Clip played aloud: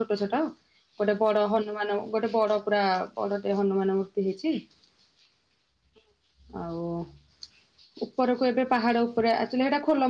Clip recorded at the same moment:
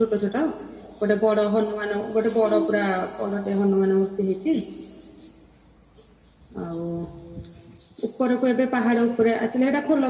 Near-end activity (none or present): present